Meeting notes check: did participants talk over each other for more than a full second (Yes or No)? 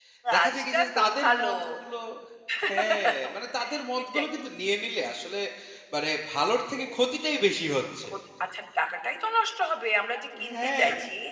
Yes